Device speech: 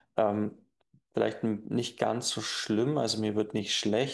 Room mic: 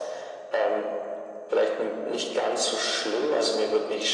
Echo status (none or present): present